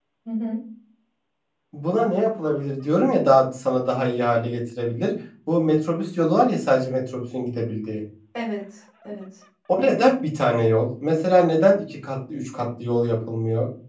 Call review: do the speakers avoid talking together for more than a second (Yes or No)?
Yes